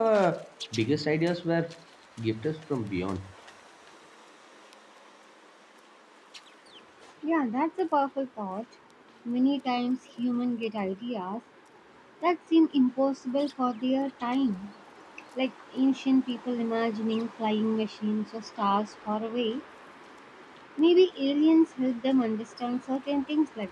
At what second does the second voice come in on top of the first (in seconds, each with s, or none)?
none